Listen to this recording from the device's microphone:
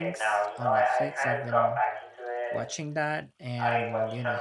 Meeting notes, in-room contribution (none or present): present